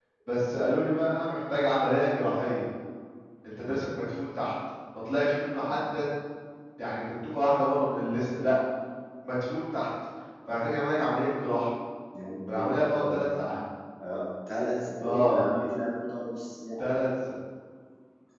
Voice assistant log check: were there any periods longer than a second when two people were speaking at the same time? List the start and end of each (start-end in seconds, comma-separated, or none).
none